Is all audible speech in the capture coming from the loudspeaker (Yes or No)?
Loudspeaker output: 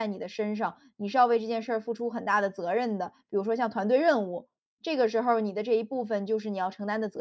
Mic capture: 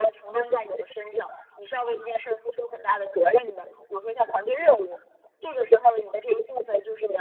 Yes